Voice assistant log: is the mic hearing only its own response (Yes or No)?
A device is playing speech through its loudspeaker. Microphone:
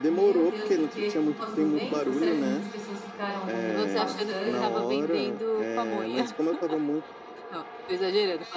No